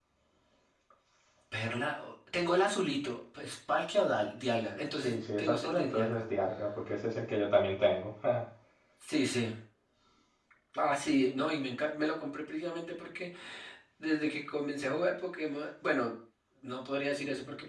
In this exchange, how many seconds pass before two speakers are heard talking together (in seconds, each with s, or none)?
5.0 s